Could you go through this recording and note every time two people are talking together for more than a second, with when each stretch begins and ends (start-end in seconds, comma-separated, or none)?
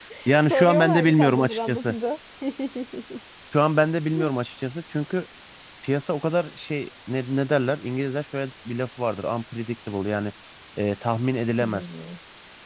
0.5-1.9